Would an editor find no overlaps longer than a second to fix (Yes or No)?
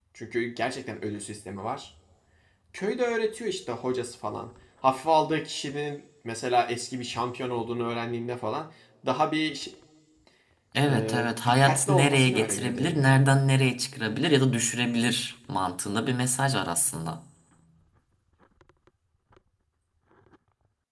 No